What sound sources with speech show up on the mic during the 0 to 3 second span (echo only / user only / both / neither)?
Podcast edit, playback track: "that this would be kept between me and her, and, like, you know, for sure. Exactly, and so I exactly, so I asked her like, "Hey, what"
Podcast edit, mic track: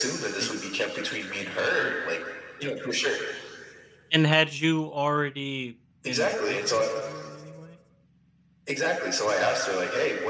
both